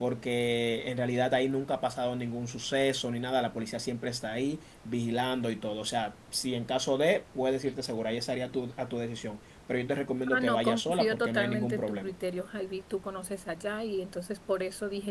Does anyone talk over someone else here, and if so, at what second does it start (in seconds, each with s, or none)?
10.2 s